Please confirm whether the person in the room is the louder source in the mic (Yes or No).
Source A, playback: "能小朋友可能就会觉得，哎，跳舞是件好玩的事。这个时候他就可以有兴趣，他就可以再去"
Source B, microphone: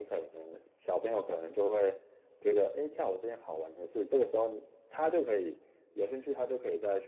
No